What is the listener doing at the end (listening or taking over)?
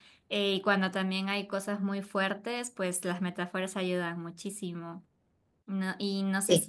listening